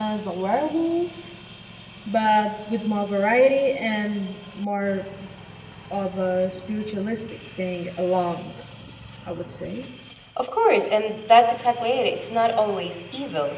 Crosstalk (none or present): none